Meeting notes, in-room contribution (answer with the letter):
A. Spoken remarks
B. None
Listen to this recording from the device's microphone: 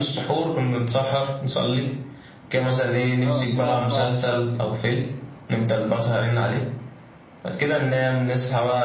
A